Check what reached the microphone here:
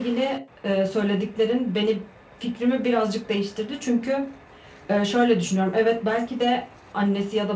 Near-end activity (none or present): none